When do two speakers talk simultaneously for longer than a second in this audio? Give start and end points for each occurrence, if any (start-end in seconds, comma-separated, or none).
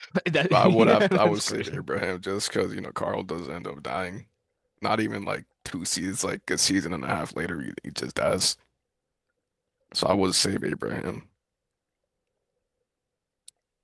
0.5-1.8